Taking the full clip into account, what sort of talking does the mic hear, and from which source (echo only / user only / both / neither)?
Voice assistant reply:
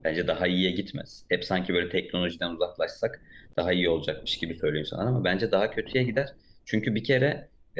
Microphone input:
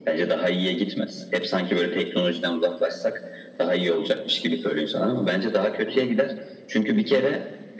echo only